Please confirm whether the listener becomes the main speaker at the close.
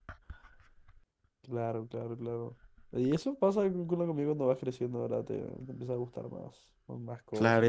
Yes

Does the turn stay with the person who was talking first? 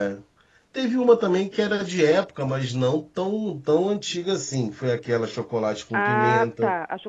No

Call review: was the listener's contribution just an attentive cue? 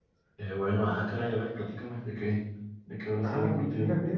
No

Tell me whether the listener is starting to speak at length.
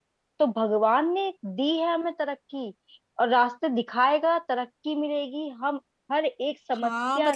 Yes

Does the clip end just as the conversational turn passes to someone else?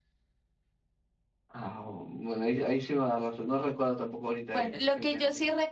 Yes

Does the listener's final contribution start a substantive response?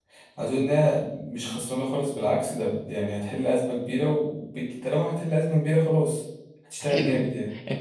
Yes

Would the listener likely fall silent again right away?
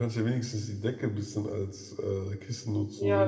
No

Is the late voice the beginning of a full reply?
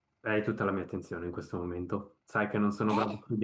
No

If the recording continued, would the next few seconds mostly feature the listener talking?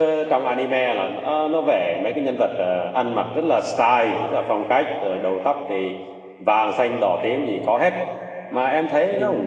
Yes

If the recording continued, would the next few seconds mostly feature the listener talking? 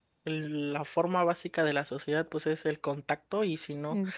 No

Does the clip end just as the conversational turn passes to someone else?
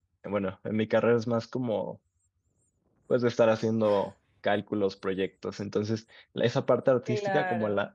No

